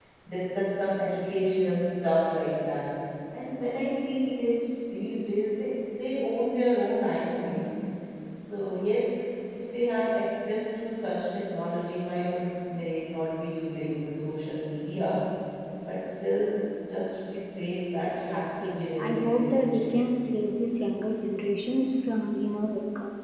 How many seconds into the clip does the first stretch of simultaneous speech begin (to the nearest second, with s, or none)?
18 s